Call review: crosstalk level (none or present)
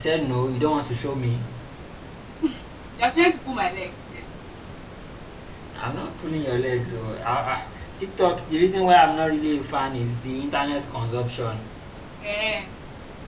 none